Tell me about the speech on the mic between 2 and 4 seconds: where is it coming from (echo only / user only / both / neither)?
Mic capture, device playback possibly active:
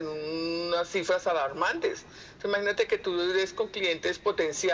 echo only